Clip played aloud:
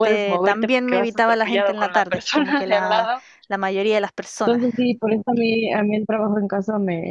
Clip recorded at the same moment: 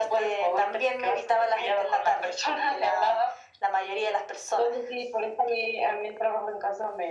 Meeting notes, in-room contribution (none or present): none